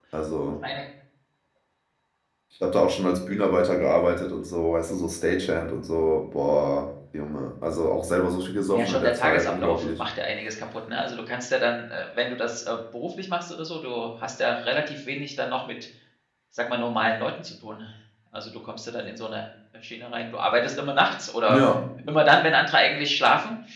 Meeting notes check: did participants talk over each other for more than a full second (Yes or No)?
Yes